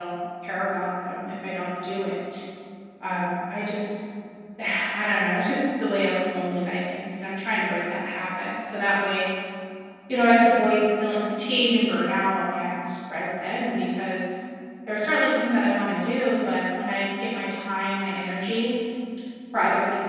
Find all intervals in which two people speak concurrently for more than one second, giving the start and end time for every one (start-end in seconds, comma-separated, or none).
none